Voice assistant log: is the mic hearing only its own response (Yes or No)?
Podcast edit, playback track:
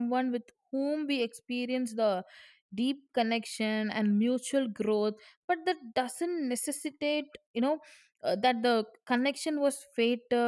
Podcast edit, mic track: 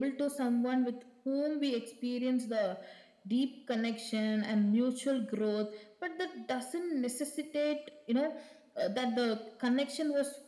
Yes